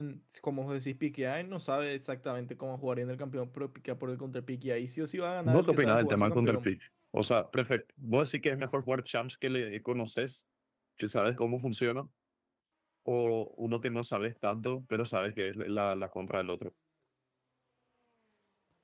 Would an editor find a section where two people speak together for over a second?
Yes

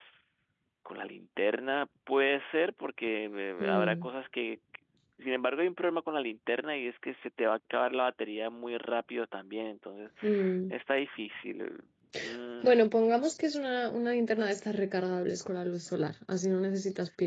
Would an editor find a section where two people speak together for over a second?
No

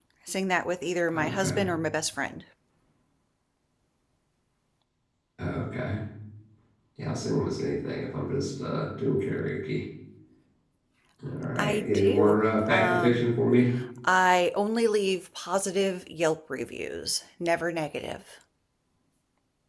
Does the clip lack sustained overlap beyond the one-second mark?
No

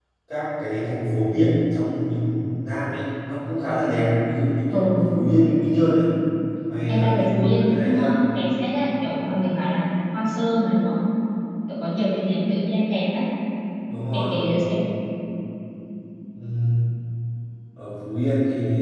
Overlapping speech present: Yes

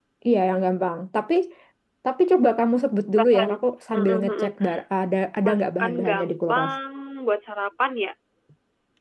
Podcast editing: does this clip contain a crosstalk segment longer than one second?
Yes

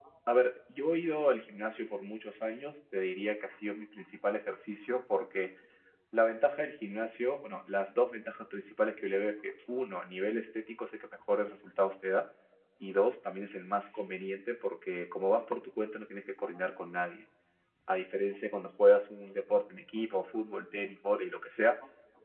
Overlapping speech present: No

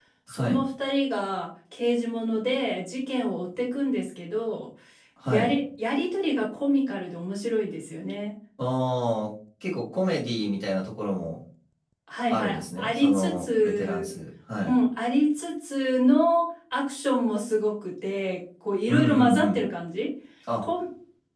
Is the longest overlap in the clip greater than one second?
Yes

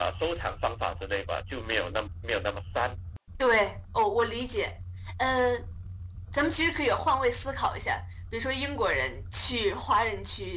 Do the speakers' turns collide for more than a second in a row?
No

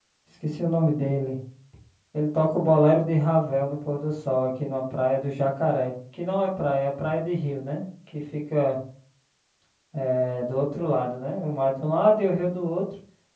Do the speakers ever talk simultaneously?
No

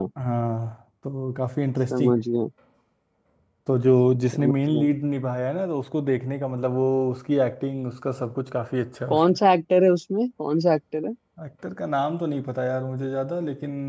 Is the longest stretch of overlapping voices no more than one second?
Yes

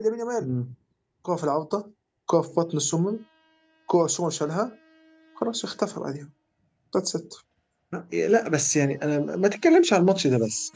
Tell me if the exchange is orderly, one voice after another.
Yes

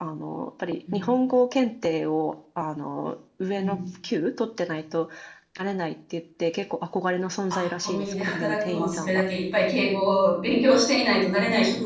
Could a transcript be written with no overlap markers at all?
No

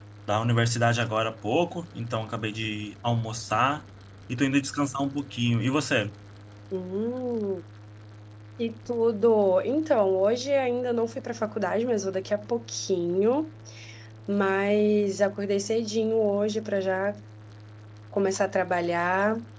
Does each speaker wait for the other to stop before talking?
Yes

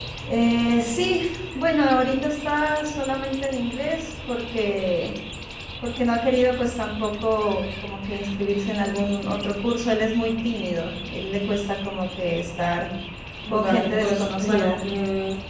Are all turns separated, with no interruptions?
No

